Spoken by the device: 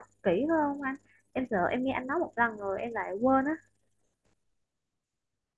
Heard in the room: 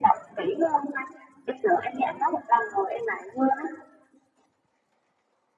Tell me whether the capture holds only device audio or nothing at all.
Yes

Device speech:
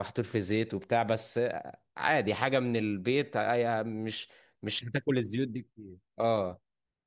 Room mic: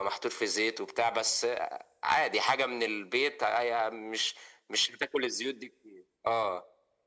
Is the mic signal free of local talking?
Yes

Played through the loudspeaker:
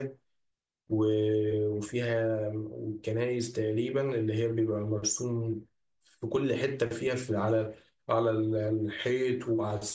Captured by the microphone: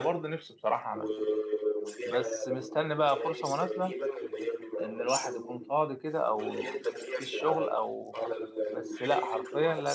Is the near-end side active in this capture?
Yes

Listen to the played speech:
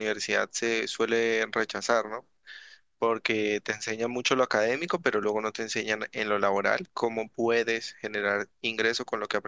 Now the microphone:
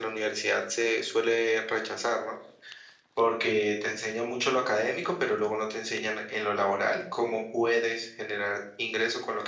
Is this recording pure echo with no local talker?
No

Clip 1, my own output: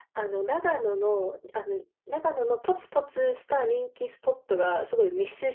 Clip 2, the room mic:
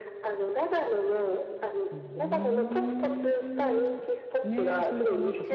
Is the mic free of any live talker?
No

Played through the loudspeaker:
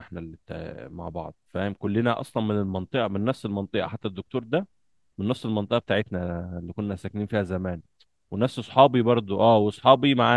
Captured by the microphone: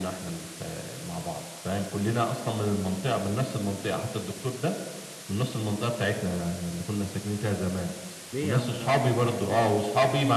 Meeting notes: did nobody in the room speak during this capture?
No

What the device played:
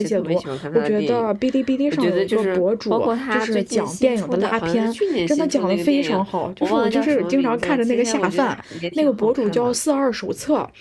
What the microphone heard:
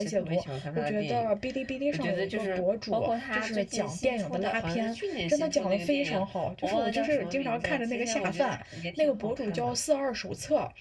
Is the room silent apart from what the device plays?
Yes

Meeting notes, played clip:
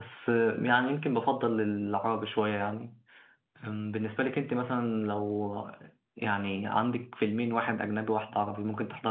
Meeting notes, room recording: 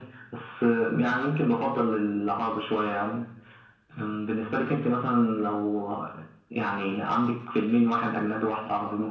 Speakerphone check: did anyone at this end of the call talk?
No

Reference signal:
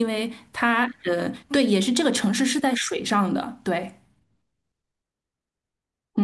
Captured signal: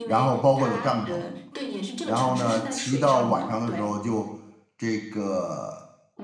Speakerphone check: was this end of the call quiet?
No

